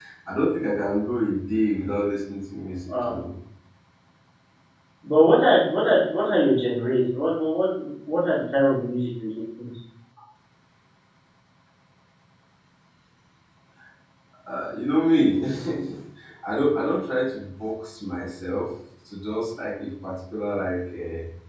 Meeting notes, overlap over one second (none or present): none